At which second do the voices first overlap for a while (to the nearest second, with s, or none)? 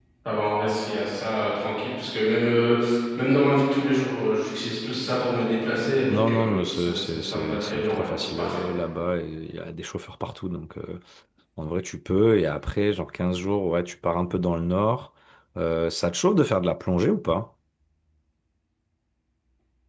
6 s